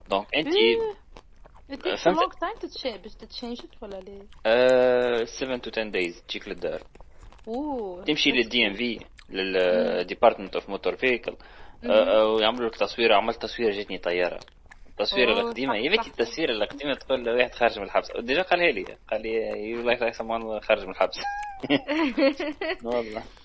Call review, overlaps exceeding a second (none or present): present